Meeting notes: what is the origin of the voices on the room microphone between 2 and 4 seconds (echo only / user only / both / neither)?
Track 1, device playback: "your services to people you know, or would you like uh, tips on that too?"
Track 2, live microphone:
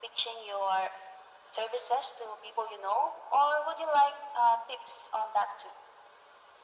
echo only